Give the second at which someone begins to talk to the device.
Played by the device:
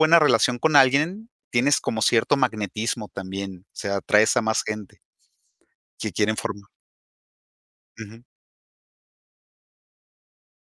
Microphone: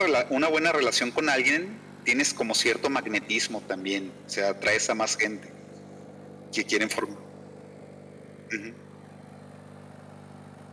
none

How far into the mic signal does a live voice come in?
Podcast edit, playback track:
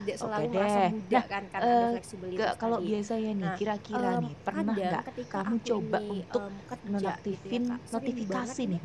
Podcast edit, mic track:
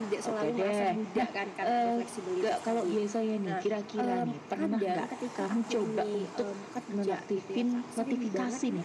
none

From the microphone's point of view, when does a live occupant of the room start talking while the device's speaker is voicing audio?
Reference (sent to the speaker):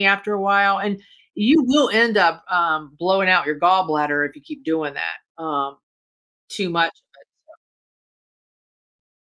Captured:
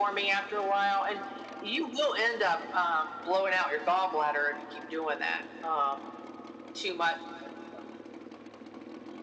none

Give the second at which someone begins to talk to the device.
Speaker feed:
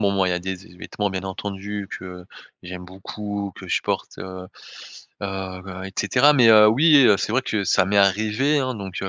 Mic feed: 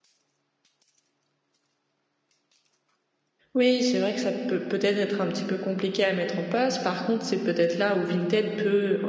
3.5 s

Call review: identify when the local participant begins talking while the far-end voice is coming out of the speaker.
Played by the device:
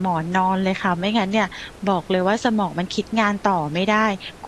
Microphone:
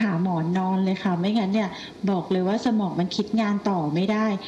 none

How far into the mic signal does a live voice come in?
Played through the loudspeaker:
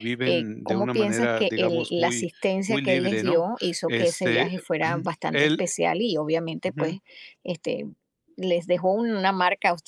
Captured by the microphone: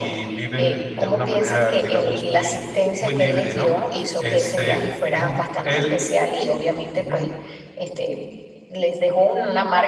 none

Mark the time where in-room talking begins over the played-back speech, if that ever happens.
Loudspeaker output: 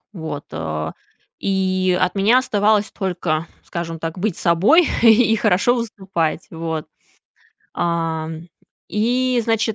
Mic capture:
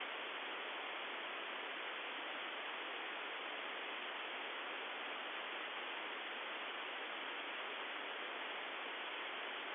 none

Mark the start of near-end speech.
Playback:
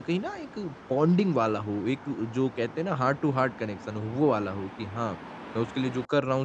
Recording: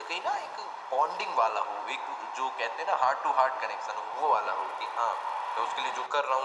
none

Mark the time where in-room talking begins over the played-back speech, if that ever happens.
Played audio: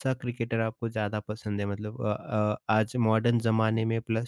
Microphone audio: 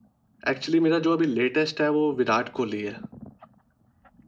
0.5 s

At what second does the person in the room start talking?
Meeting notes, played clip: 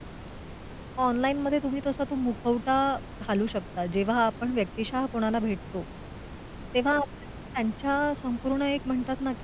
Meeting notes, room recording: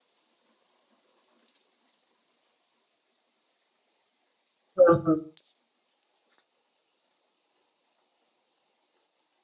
4.8 s

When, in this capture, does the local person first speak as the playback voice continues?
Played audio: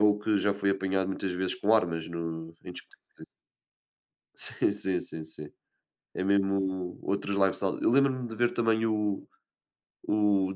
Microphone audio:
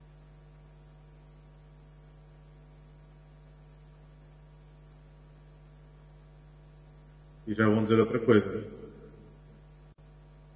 7.5 s

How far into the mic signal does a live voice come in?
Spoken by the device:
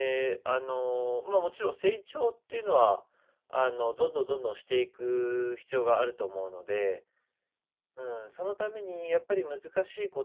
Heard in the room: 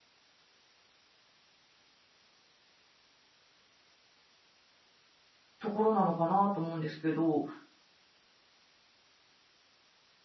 5.6 s

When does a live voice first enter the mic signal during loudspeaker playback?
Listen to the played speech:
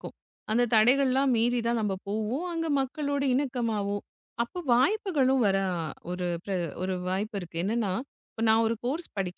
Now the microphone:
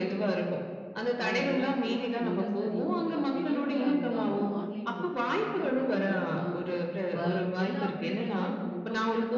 1.2 s

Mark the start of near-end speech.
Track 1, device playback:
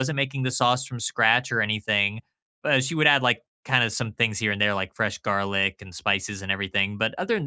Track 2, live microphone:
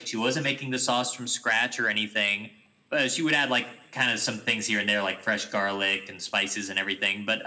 none

